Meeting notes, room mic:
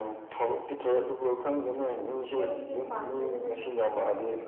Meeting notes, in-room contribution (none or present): present